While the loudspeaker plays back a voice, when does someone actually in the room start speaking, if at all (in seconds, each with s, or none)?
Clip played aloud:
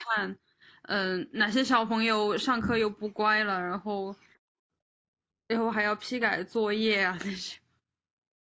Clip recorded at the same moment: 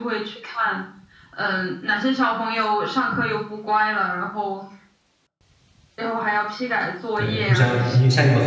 7.1 s